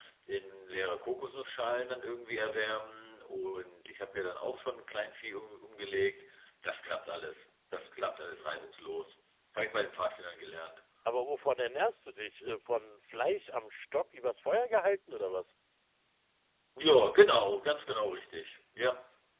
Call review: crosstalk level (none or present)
none